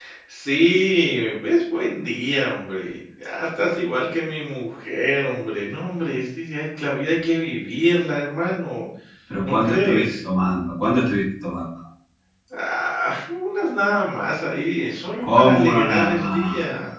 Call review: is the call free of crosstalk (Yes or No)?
No